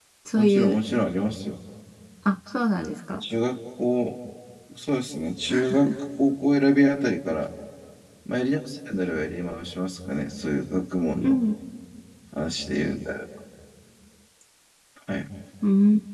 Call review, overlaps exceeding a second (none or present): none